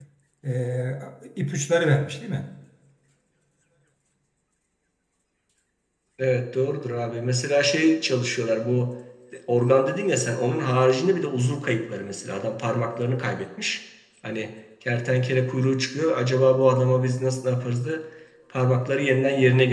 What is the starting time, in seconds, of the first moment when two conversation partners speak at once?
none

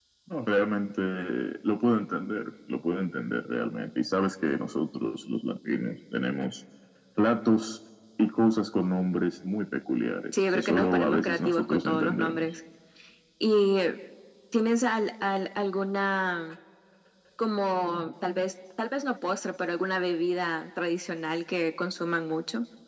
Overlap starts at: 10.3 s

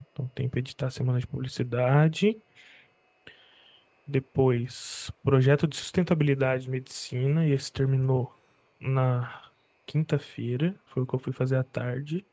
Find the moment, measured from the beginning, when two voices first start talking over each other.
none

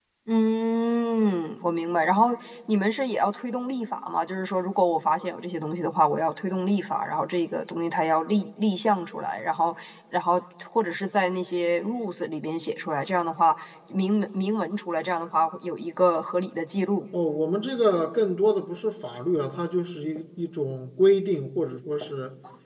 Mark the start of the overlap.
none

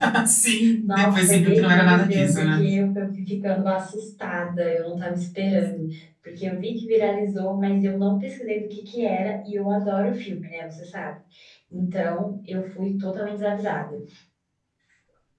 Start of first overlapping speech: 0.8 s

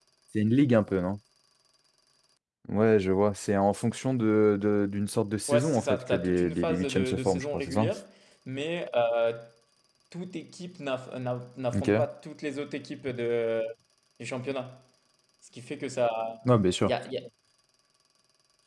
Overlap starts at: 5.5 s

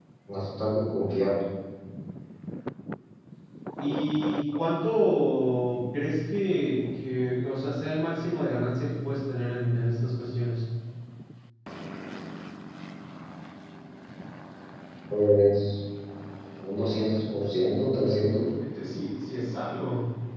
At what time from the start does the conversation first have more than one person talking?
none

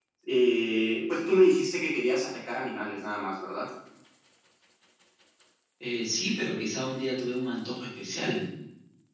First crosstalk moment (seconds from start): none

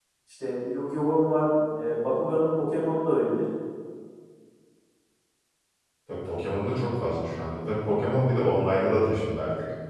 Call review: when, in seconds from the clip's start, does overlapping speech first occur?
none

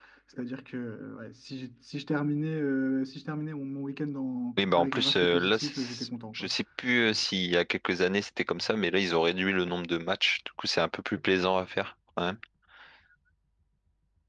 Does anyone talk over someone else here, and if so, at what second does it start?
4.6 s

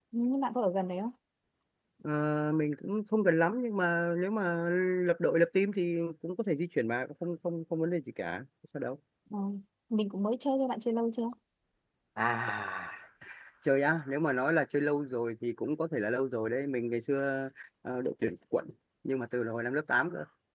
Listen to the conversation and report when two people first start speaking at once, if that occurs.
none

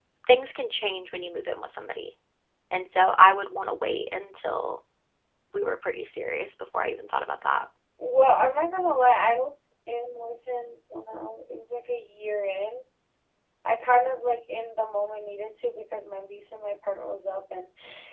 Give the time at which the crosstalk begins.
none

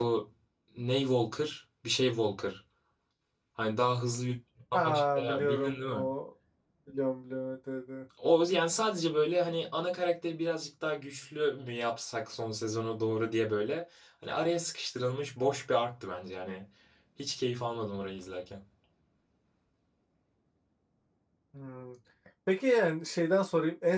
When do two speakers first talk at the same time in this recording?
4.7 s

